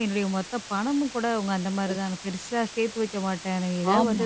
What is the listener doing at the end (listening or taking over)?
listening